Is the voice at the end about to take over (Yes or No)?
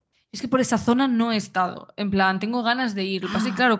No